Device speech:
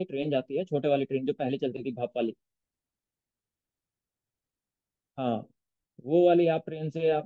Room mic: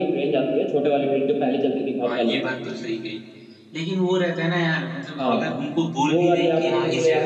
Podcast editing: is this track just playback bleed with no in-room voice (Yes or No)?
No